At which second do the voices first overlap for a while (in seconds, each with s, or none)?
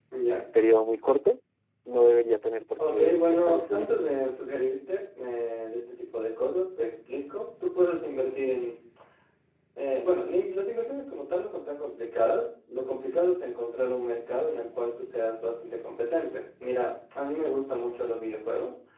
2.8 s